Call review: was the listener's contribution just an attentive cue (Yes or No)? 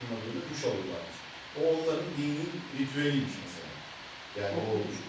Yes